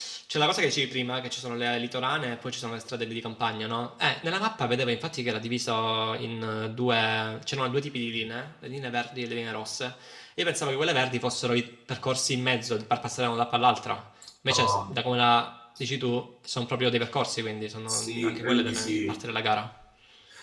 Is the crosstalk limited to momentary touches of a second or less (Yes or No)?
No